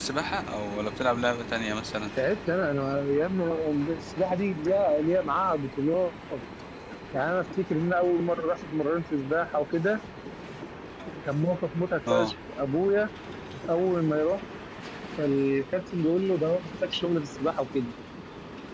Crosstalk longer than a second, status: none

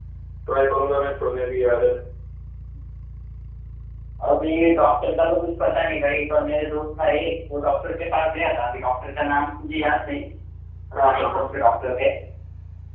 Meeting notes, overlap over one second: none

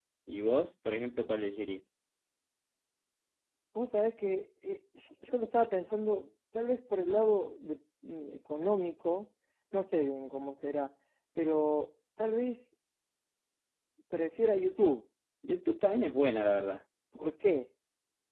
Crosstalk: none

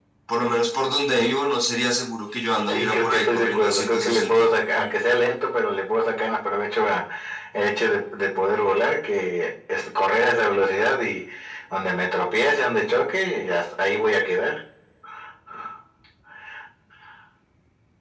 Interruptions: present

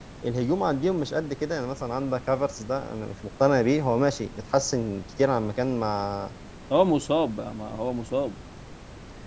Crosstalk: none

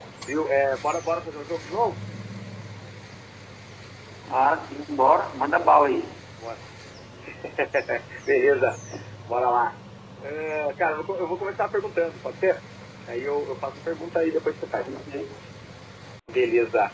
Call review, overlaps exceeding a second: none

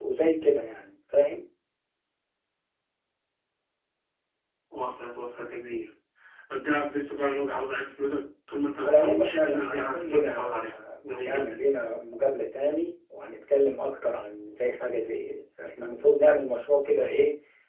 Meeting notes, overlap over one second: present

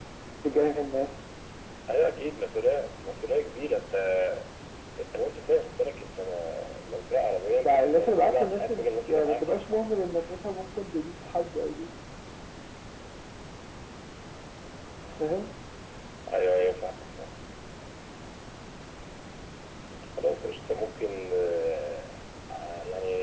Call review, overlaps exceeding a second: present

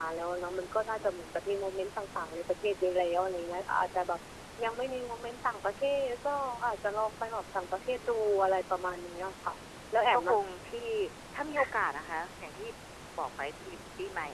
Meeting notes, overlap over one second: none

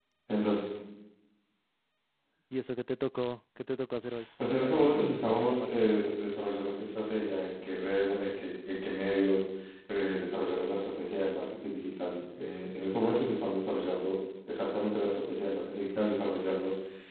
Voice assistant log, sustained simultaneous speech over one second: present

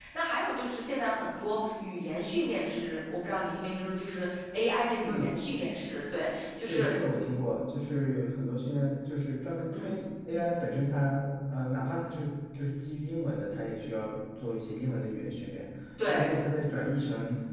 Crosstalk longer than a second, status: none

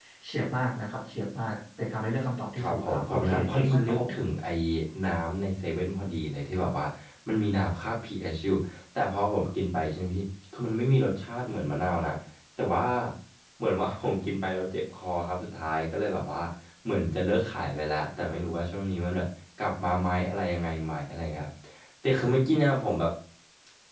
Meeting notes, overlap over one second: present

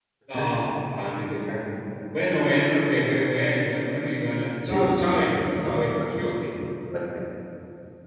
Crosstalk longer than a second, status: present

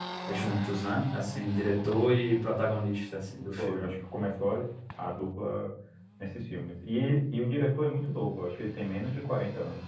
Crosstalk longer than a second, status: none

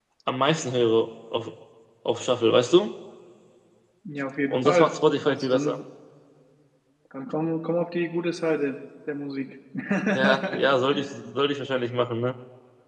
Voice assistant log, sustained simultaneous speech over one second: present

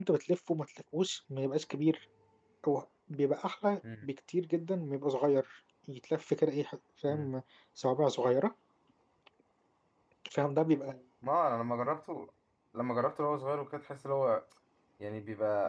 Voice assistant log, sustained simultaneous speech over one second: none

